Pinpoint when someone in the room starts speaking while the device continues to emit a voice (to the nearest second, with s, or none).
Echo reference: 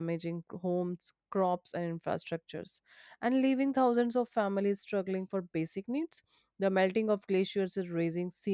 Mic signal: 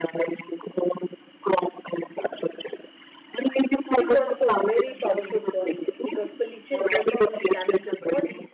4 s